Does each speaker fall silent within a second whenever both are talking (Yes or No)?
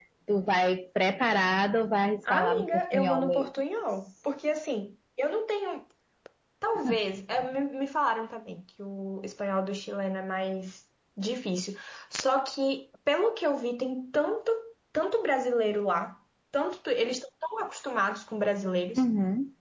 No